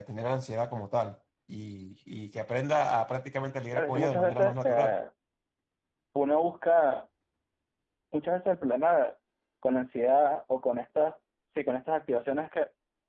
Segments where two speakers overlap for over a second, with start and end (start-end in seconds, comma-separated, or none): 3.7-5.0